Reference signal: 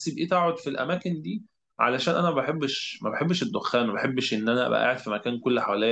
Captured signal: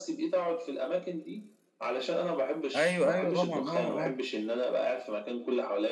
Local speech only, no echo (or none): ايوه ايوه طبعا اه اه